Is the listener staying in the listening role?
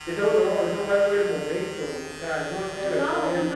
No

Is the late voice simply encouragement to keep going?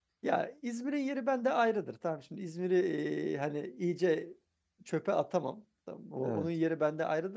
Yes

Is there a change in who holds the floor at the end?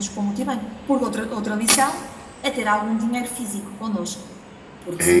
Yes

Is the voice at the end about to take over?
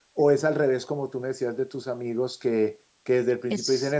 No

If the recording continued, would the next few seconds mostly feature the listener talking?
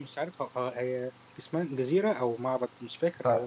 Yes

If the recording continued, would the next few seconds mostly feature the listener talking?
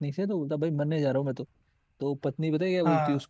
No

